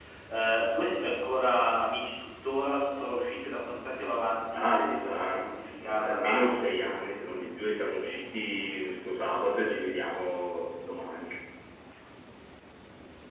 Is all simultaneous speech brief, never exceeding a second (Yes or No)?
No